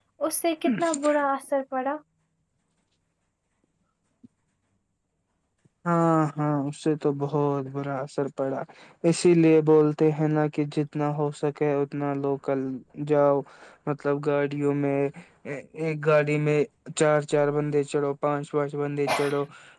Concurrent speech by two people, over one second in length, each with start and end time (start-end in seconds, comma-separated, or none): none